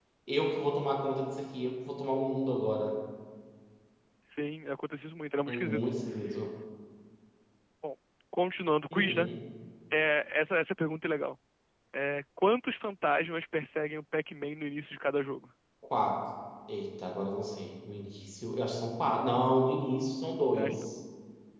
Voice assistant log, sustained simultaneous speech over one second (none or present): none